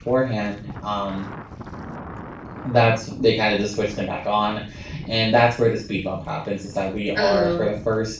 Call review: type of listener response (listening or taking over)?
listening